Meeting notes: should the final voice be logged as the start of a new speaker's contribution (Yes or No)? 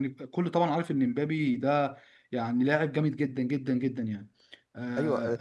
Yes